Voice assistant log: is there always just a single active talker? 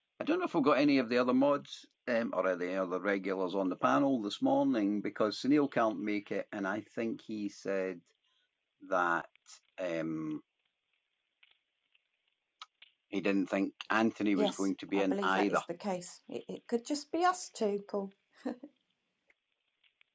No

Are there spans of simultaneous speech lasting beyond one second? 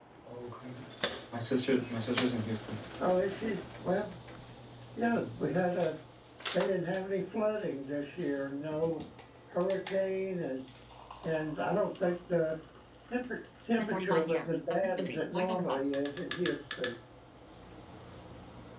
Yes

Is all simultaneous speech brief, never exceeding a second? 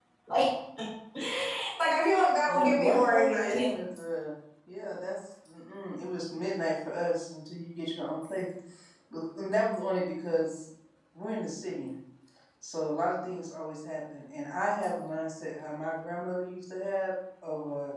No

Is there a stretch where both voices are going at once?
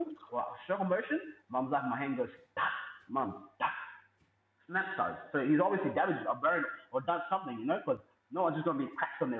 No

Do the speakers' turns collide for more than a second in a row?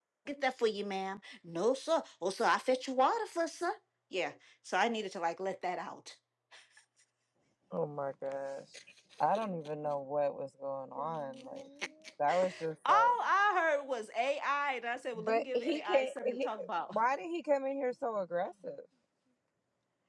Yes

